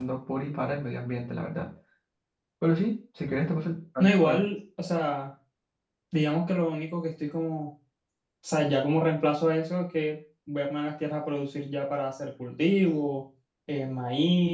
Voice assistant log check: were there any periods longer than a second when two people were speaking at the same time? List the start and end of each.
none

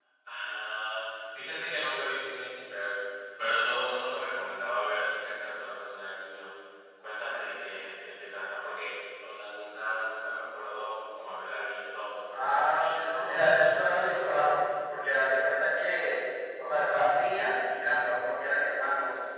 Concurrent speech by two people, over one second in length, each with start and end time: 12.3-14.2

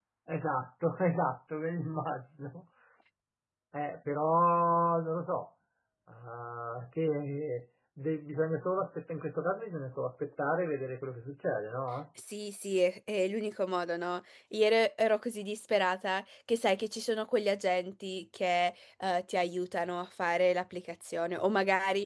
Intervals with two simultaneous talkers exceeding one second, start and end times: none

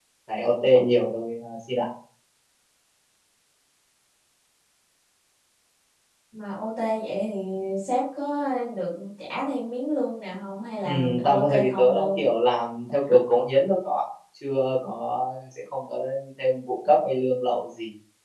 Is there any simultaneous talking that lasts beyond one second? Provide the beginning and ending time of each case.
10.8-12.3

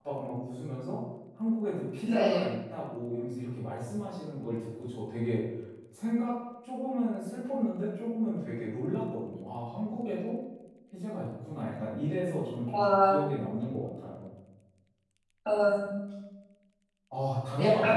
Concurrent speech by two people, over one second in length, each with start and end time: none

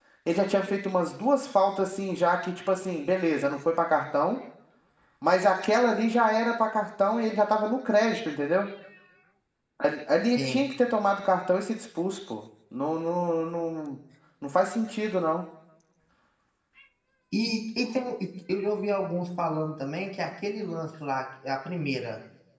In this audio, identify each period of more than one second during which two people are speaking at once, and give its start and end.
none

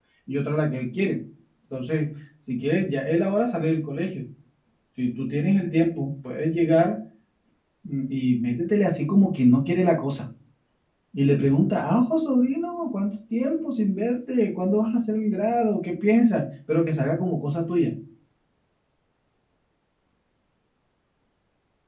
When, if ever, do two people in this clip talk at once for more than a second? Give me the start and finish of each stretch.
none

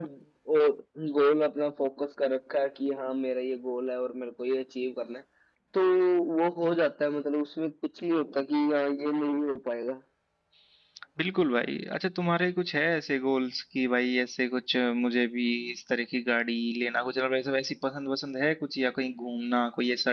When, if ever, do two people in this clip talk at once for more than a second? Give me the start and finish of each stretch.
none

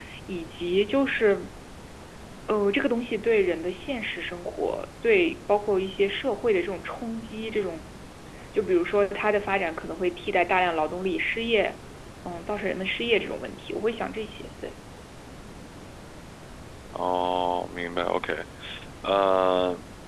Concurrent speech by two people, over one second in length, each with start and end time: none

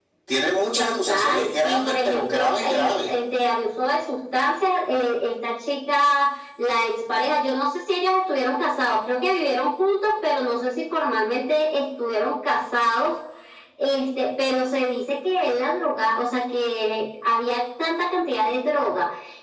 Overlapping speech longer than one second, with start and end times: 0.8-3.1

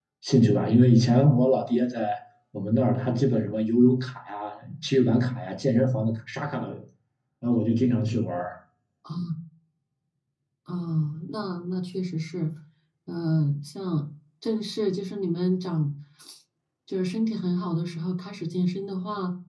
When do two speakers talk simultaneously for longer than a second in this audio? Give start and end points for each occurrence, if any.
none

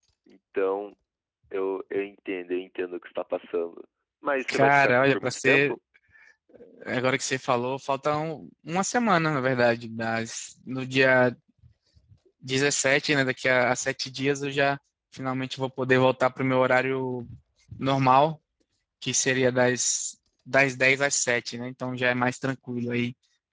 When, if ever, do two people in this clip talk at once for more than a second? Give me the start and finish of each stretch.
4.5-5.7

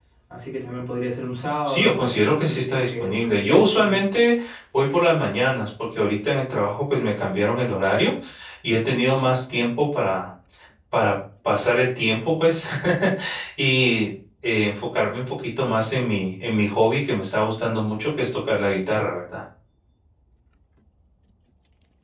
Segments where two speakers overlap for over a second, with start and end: 1.7-4.0

